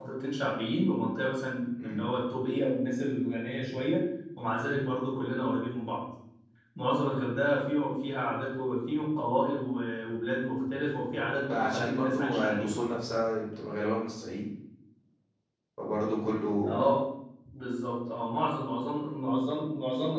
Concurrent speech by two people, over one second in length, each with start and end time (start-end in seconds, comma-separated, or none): 11.5-12.7